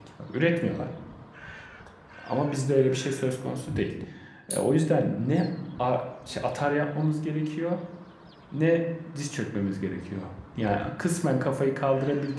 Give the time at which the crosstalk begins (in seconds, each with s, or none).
none